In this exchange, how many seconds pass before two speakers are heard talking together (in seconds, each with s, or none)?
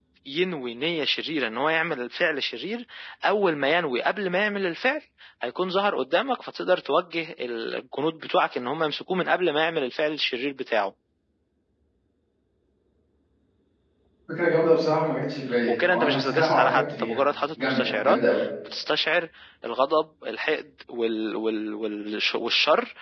15.7 s